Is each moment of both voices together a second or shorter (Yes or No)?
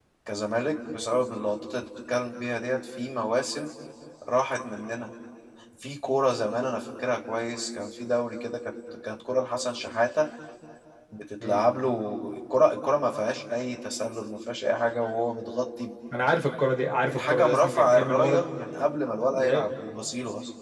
No